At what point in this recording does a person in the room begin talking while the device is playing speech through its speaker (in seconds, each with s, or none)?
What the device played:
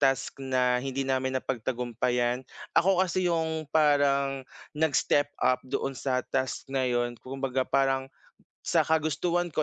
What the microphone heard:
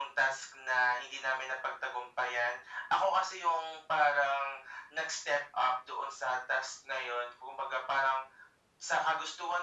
none